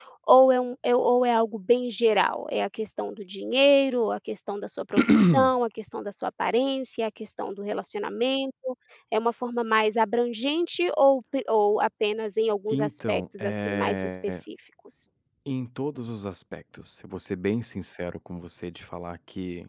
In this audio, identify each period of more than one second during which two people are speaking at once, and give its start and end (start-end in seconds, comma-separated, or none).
12.7-14.4